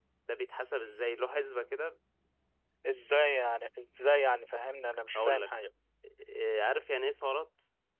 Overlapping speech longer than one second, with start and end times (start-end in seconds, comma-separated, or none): none